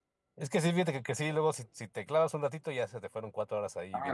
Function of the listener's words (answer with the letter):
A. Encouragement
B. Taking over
B